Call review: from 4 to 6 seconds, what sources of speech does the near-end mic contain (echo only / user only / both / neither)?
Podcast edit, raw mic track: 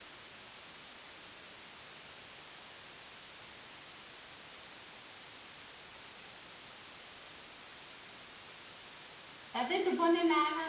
neither